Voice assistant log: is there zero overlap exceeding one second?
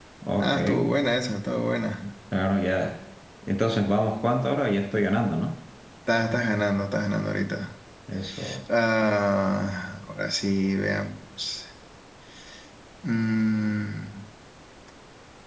Yes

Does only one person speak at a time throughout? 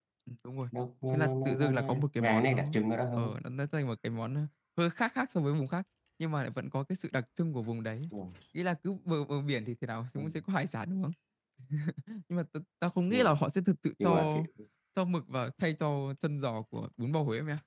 No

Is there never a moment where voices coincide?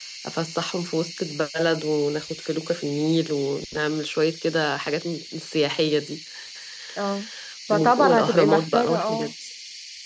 No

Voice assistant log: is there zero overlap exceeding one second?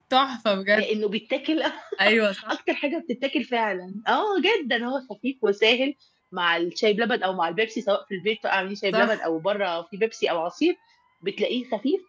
Yes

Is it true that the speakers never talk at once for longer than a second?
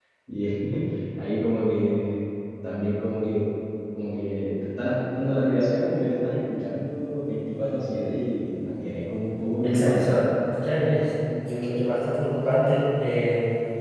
Yes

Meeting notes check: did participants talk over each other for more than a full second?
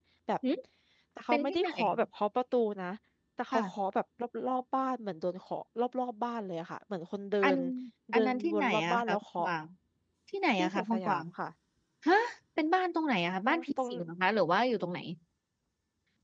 Yes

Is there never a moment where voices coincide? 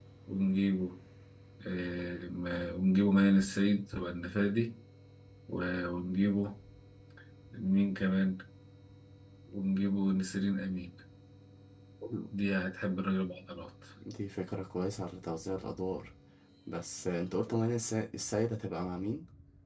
Yes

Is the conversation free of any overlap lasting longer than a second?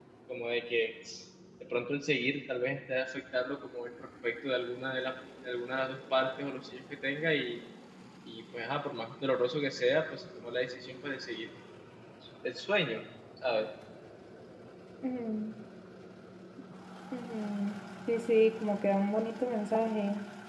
Yes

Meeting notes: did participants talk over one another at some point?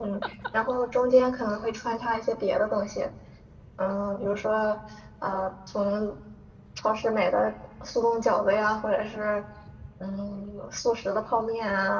No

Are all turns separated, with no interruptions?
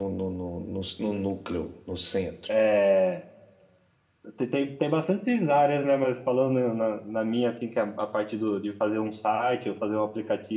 Yes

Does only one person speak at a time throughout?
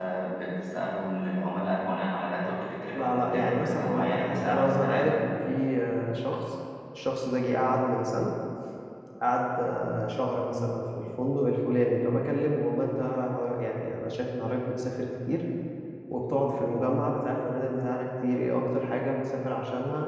No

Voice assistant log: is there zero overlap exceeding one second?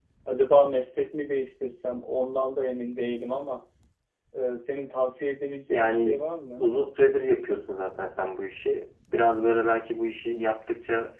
Yes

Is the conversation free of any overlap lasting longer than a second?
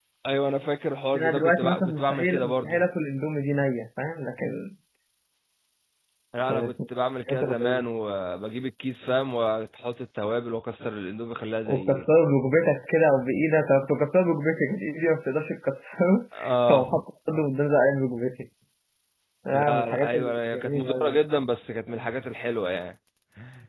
No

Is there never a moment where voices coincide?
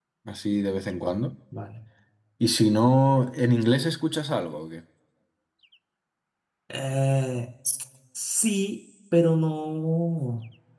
Yes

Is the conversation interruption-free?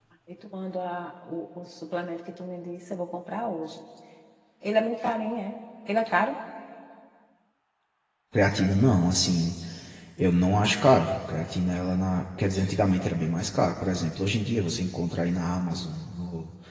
Yes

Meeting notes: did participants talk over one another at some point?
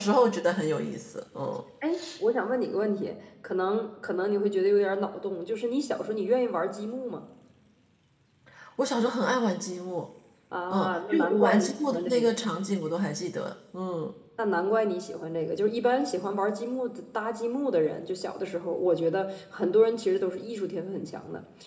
Yes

